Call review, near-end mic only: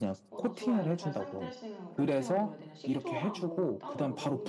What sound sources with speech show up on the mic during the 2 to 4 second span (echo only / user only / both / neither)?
both